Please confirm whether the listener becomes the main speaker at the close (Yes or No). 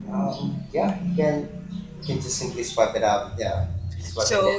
Yes